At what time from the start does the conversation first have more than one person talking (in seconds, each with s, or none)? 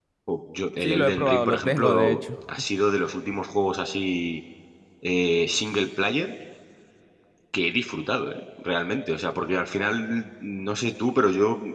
0.8 s